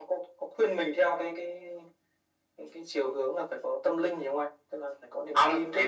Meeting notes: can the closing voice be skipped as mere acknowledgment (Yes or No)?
No